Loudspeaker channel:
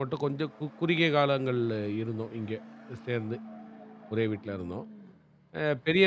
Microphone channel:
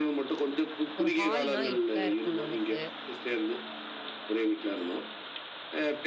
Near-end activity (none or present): present